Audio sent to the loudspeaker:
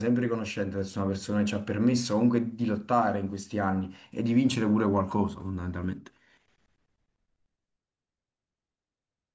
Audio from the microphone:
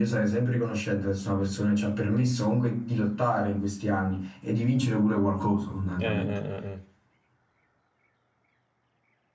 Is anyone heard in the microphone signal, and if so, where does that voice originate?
both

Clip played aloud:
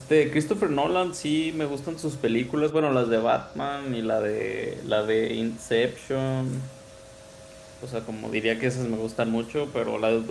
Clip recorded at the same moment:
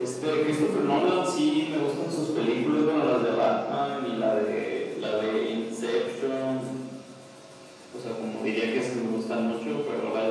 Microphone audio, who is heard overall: echo only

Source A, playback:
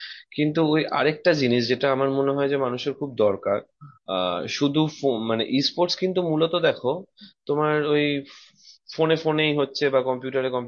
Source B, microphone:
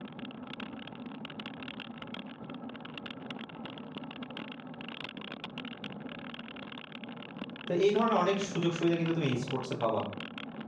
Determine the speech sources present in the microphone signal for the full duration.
user only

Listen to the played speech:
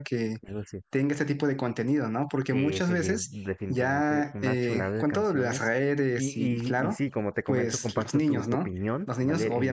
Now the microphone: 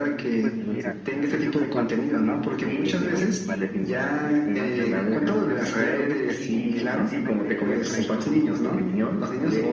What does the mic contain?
both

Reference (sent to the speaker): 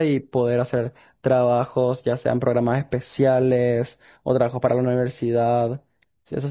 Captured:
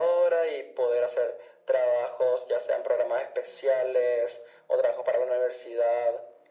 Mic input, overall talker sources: echo only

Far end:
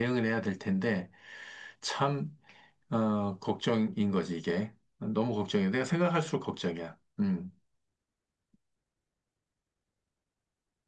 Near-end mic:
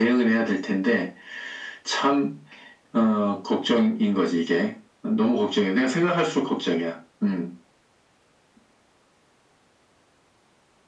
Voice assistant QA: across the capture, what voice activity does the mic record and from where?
echo only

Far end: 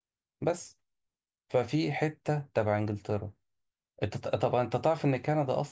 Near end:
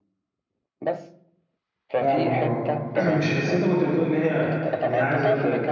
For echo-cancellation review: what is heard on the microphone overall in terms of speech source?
both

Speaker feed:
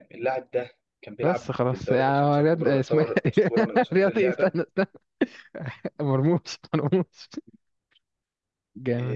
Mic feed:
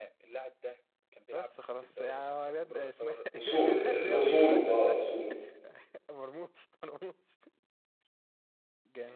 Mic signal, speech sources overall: both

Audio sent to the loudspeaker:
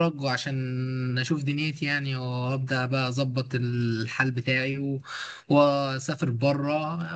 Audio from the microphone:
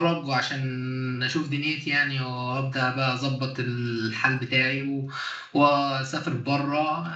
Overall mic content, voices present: echo only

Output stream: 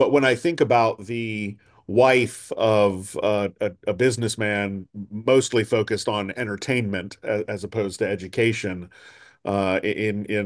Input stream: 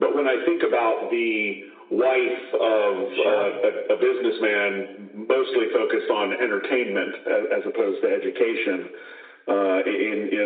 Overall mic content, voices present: both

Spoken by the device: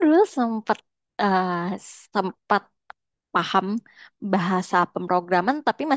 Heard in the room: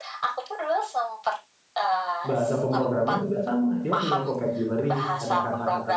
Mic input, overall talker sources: both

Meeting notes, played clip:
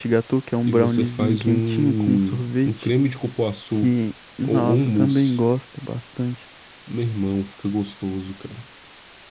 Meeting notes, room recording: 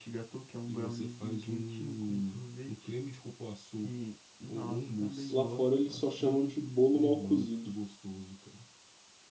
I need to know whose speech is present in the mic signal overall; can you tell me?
both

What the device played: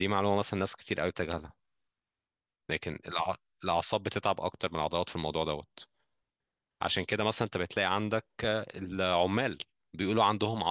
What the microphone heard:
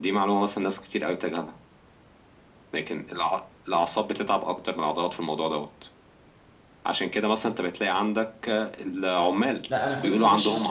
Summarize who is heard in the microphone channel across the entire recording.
both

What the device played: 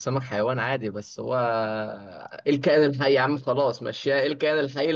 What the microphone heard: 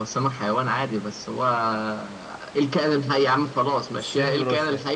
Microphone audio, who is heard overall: both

